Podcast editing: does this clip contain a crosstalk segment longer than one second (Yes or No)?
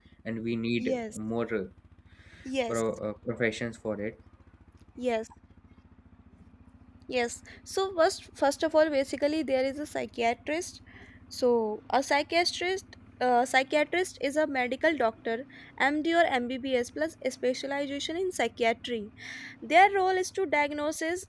No